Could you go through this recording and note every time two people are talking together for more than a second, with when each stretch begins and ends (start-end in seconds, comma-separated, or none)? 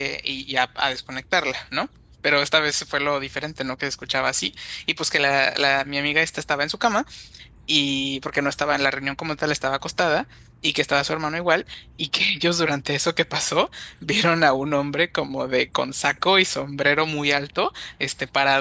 none